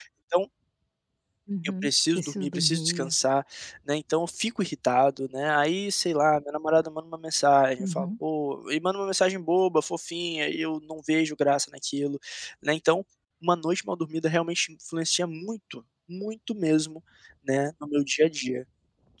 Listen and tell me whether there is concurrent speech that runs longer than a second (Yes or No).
Yes